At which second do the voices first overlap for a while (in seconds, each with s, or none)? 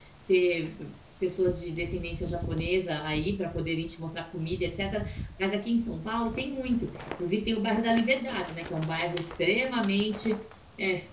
none